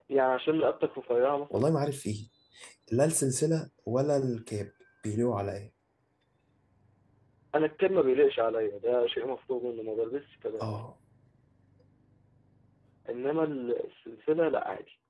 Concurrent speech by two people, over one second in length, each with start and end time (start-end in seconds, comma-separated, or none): none